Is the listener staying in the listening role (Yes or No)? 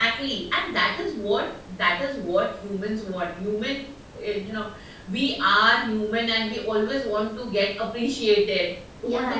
No